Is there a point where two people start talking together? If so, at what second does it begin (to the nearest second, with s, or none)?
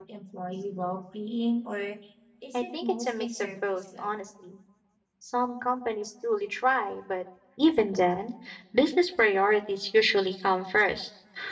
3 s